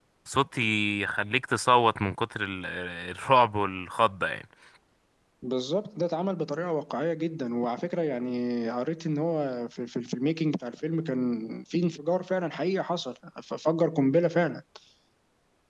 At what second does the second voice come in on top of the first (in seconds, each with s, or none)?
none